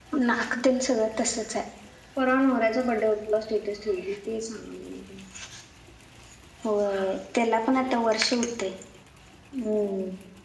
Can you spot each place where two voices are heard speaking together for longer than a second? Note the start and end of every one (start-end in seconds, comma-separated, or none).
none